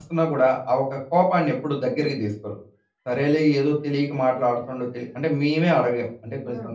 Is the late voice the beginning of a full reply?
No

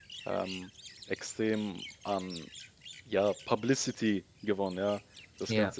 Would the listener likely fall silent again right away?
Yes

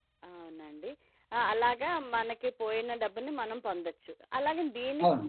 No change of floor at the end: Yes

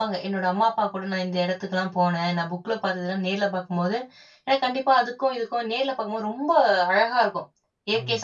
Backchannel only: Yes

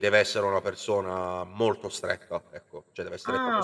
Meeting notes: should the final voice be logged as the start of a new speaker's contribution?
Yes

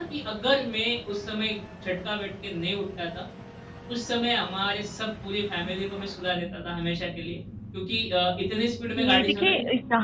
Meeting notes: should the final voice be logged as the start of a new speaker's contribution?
Yes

